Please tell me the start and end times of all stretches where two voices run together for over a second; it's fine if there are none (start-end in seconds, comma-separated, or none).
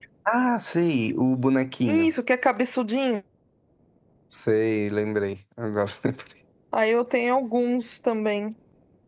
none